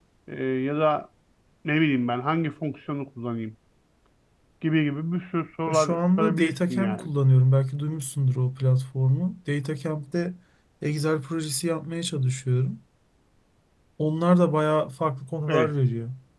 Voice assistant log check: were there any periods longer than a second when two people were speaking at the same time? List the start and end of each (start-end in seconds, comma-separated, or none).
5.7-7.1